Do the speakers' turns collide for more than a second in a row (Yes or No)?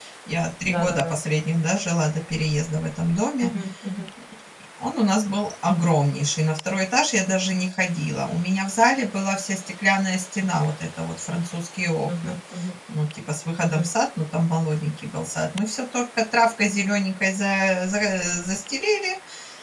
No